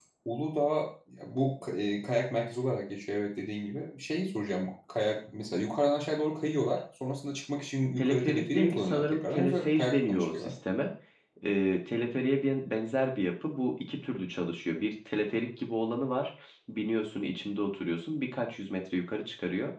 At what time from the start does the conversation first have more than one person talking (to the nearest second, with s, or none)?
8 s